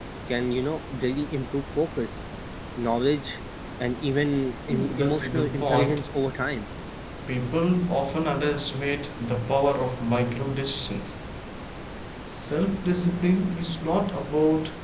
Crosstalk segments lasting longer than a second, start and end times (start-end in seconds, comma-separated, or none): 4.7-6.0